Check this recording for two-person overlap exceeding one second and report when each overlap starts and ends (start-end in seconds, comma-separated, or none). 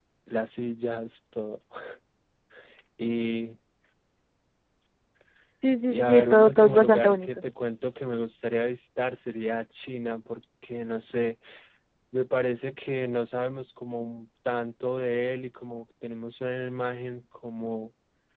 5.9-7.3